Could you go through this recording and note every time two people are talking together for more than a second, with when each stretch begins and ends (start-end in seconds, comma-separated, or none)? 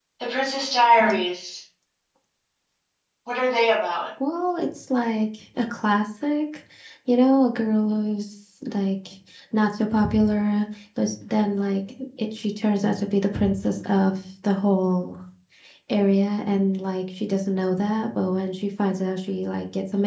none